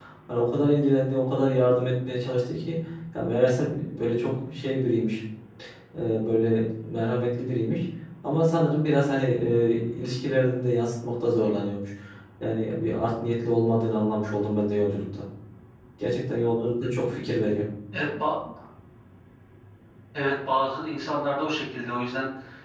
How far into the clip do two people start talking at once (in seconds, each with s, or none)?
none